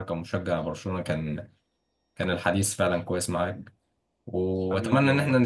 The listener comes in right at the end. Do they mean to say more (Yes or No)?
No